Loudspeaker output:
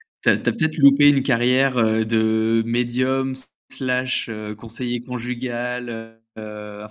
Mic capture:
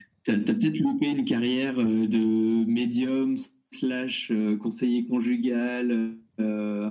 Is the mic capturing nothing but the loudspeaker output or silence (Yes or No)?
Yes